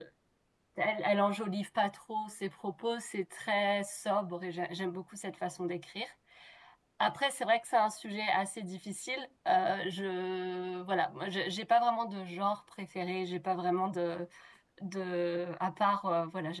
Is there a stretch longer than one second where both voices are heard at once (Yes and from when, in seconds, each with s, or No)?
No